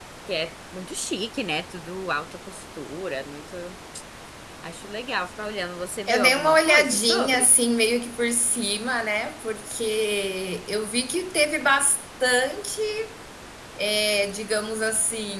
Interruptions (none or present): present